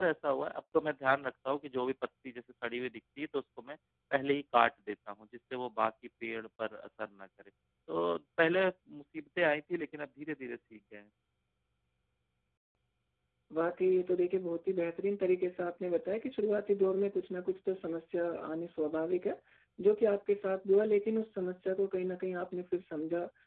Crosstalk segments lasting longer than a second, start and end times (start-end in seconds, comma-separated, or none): none